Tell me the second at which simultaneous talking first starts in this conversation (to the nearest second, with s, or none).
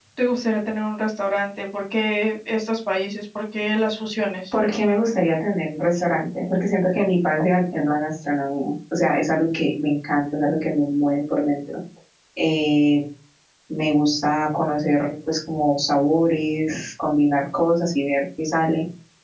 none